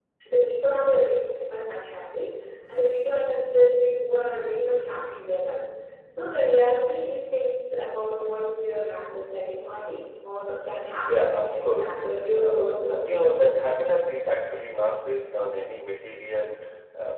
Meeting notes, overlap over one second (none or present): present